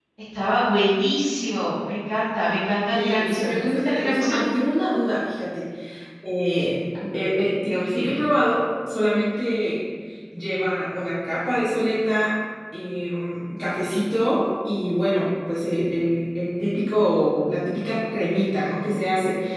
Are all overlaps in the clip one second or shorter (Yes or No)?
No